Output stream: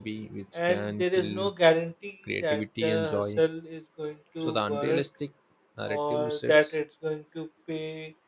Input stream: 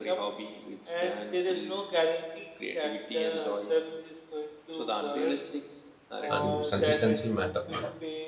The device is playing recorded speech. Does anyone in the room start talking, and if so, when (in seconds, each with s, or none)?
6.3 s